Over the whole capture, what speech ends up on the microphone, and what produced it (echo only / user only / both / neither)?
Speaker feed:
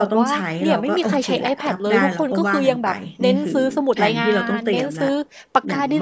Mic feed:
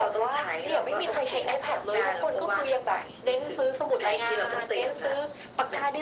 echo only